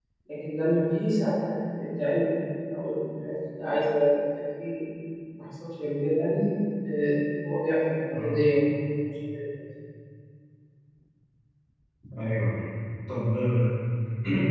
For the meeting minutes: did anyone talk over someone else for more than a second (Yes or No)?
No